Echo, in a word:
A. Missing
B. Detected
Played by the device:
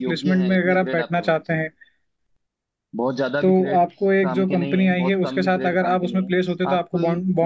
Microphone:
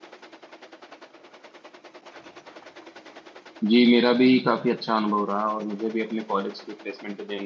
A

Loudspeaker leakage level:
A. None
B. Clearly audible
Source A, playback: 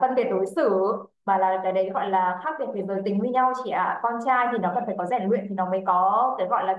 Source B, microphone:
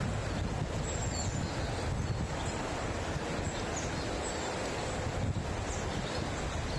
A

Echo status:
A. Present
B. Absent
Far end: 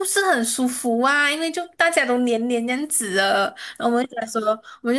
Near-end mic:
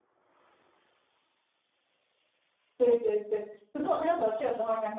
B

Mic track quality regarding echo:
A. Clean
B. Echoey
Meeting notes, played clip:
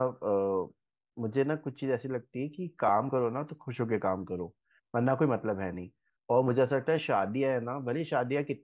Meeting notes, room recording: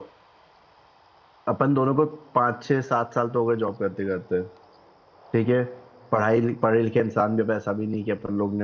A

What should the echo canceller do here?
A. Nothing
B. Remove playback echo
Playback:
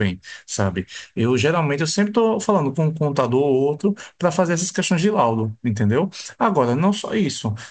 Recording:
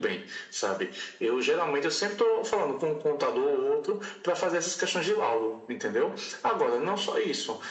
B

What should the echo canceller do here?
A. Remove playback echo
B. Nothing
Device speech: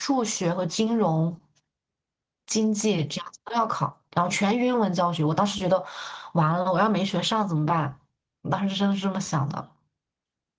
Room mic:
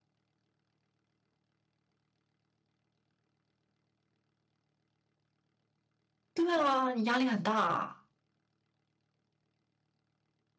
B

